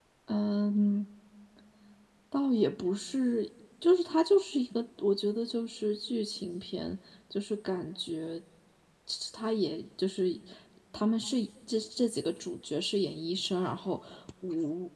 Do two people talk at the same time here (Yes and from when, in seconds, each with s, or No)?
No